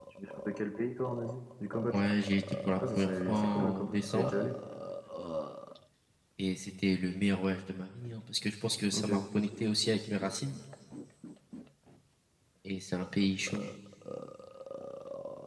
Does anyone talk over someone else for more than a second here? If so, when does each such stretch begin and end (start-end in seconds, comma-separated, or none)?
2.8-4.3